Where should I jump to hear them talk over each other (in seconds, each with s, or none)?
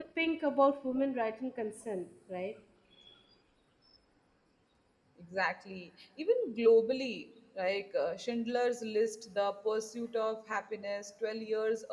none